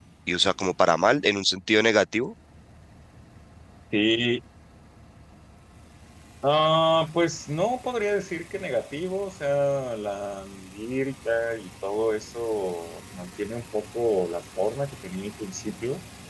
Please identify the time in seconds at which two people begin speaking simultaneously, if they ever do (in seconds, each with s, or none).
none